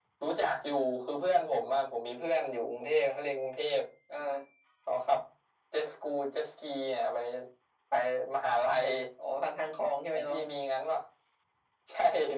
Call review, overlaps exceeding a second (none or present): none